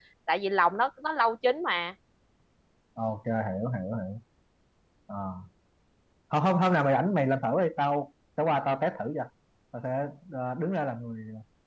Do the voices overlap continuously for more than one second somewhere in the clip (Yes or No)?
No